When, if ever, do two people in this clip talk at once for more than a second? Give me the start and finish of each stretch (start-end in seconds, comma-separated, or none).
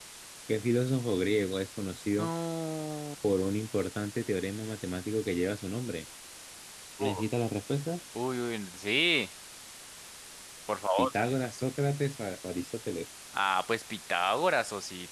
none